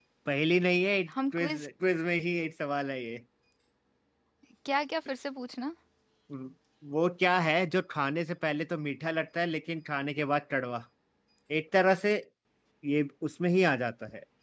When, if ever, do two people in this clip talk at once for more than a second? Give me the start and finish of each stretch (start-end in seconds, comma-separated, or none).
none